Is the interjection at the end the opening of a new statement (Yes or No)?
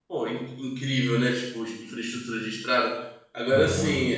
No